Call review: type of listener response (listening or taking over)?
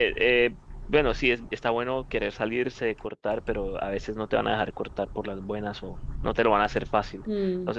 taking over